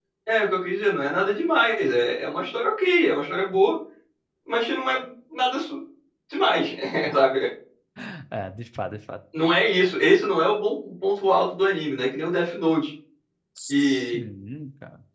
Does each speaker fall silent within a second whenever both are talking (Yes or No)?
Yes